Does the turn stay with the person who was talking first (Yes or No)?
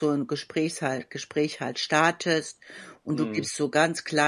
Yes